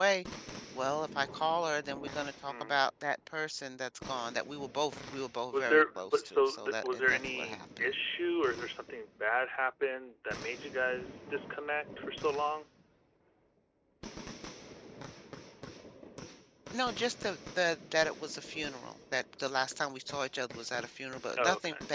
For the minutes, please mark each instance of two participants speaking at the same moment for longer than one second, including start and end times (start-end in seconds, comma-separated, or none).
5.5-7.9